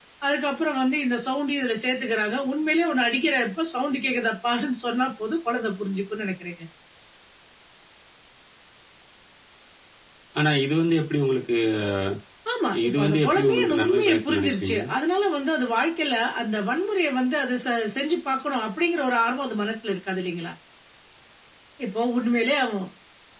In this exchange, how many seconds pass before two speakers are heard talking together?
12.9 s

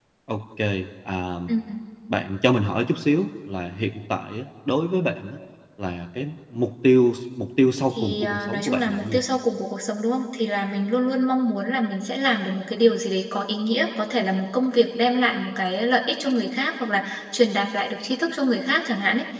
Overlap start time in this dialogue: 8.0 s

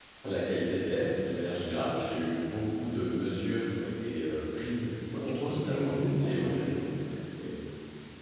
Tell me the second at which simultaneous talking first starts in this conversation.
5.1 s

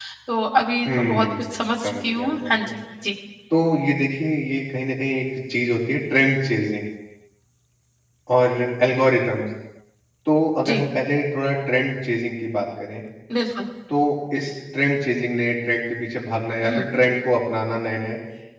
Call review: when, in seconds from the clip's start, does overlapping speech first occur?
0.9 s

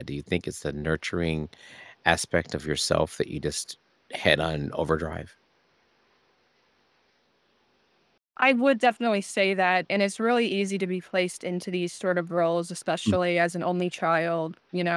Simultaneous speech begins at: none

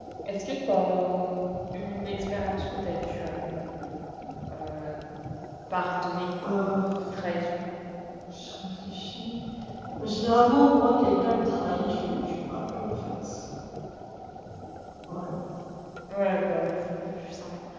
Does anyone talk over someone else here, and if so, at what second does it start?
none

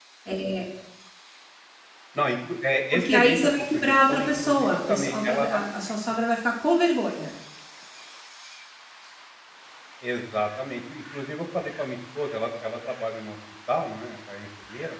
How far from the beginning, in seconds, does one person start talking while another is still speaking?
2.9 s

